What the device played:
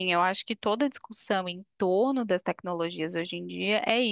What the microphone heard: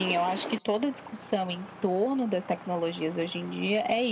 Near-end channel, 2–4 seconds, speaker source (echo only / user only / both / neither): echo only